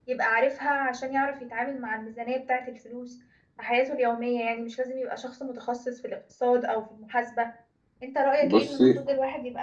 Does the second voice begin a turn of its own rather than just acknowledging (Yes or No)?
No